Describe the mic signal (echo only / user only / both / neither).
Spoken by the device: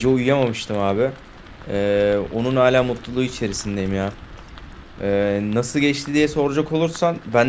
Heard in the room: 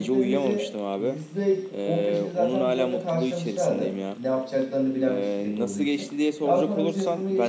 both